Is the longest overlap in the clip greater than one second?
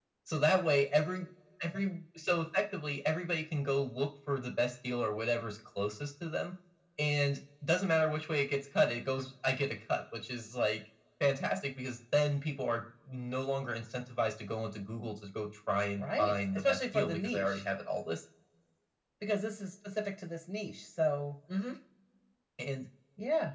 Yes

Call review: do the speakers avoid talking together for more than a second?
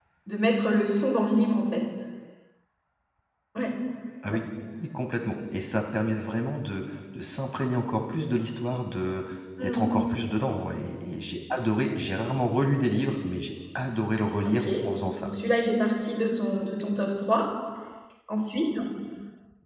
Yes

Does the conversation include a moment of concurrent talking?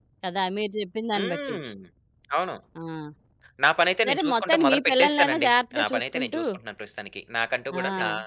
Yes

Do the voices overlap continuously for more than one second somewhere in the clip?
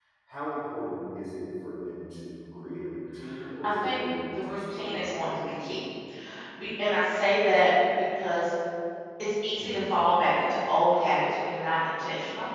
Yes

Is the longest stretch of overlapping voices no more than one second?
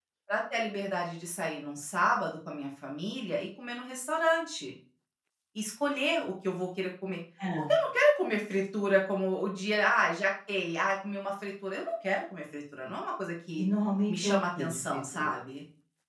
No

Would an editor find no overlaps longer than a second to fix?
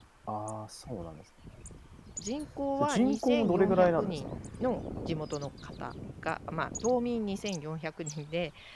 No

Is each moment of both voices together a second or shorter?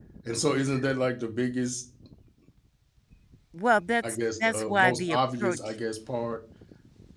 No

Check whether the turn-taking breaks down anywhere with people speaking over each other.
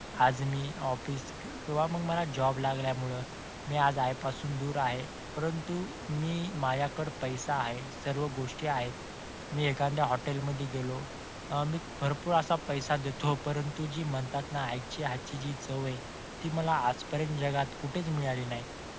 No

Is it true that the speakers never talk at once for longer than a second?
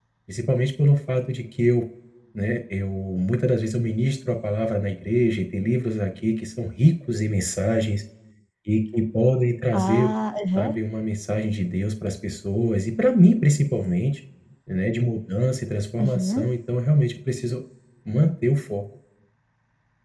Yes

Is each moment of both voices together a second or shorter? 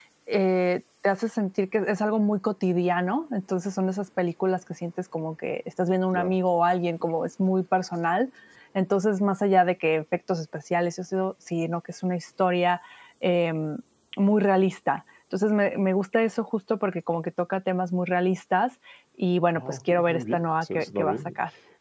No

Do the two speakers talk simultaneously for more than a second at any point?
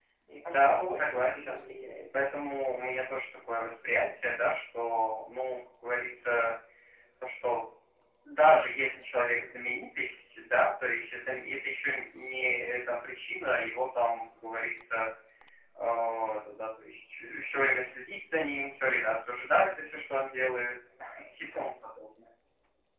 Yes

